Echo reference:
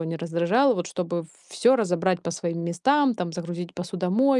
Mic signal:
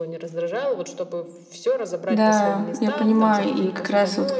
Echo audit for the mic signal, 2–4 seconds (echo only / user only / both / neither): both